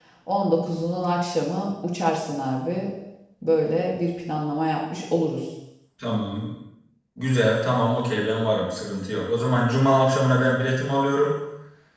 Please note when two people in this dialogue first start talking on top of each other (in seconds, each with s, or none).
none